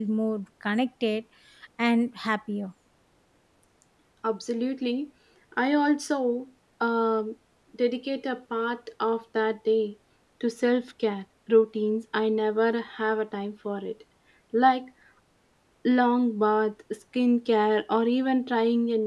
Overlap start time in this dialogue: none

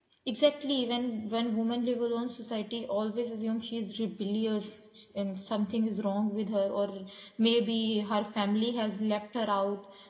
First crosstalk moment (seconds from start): none

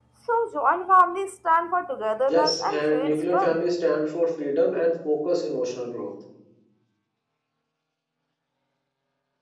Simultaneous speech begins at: 2 s

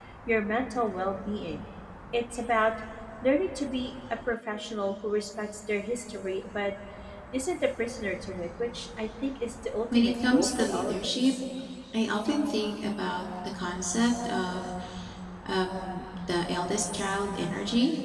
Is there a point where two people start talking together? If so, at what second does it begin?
10 s

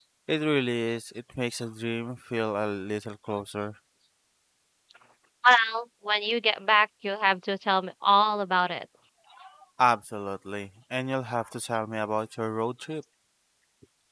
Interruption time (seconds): none

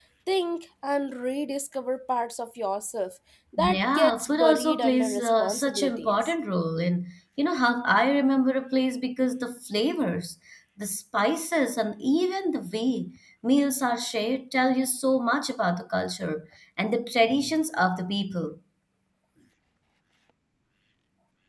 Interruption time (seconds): 4 s

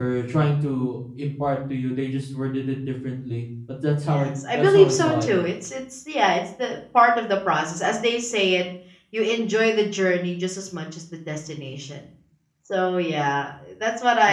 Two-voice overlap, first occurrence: 4 s

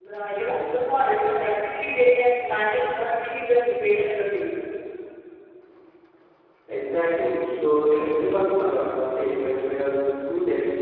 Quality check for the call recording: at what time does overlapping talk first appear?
none

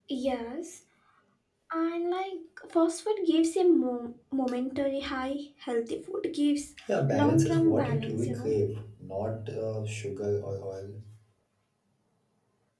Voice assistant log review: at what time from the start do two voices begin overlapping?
7 s

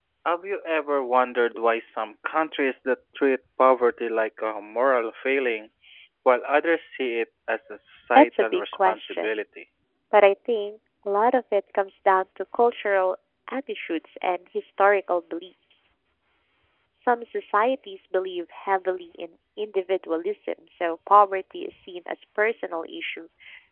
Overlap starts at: 8 s

